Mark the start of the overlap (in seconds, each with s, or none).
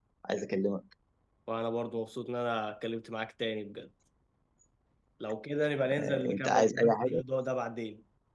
6.0 s